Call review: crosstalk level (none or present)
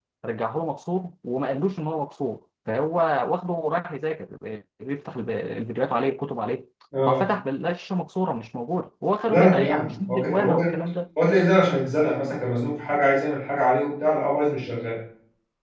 present